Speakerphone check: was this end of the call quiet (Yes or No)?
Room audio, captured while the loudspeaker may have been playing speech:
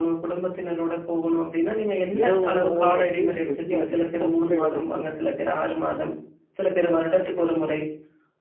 No